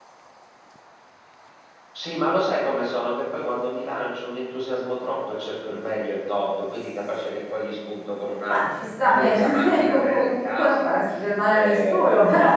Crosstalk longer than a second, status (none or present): present